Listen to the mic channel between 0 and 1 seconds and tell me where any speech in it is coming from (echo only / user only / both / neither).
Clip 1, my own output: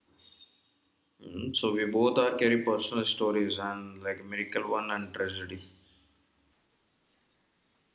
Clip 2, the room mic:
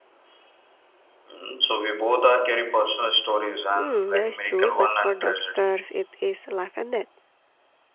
neither